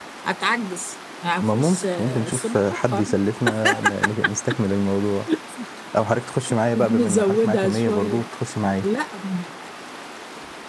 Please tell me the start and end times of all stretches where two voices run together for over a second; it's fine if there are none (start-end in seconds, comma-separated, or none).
1.4-3.1, 7.0-8.2